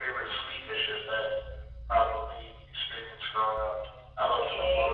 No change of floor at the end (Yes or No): No